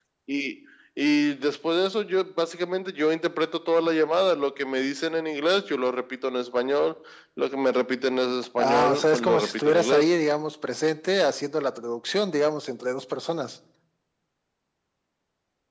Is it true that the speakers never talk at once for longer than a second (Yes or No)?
No